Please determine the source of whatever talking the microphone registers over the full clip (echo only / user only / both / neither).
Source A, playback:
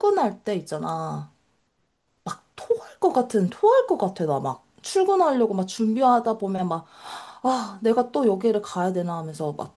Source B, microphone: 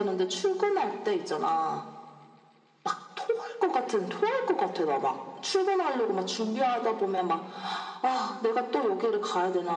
echo only